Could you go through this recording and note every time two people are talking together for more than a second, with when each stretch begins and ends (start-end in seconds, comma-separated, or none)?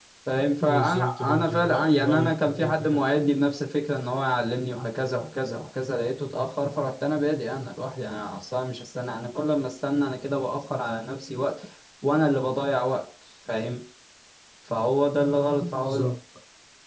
0.6-3.0